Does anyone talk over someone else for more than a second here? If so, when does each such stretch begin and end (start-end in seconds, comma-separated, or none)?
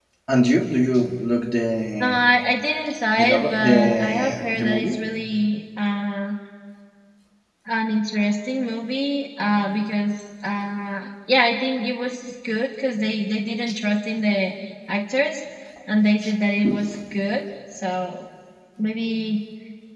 3.2-5.0